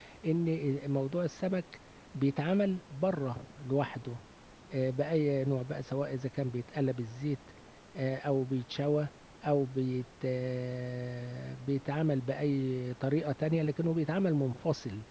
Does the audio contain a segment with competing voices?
No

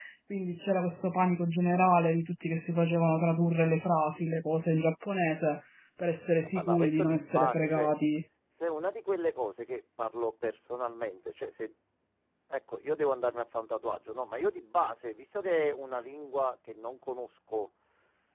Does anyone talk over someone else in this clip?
Yes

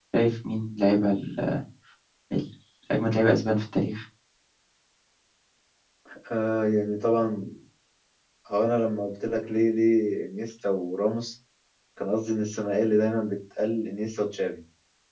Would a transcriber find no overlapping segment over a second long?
Yes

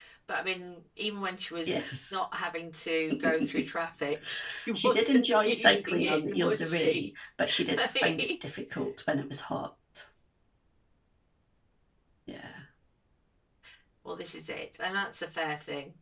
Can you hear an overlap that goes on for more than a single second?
Yes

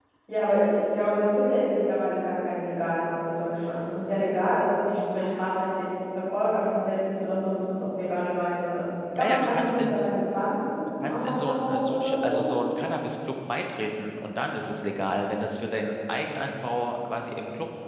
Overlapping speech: Yes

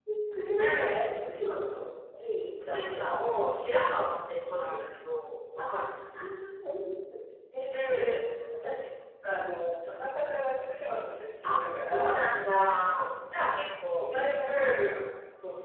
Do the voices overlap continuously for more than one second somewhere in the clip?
Yes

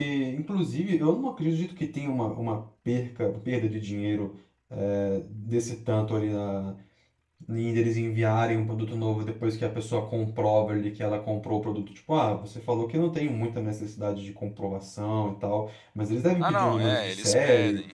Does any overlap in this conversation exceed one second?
Yes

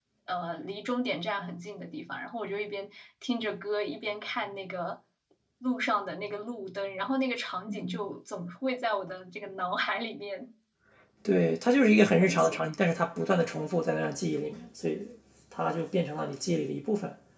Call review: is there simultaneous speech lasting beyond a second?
No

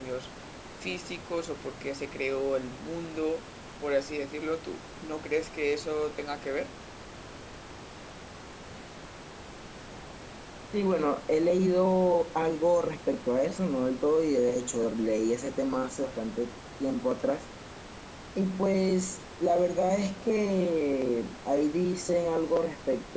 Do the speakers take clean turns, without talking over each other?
Yes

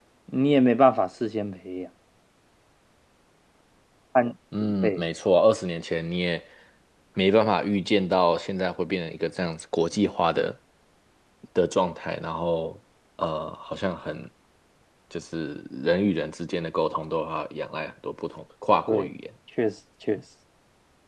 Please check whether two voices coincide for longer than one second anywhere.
No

